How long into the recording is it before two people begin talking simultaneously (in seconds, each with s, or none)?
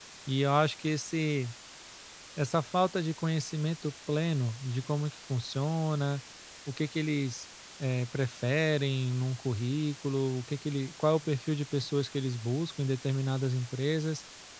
none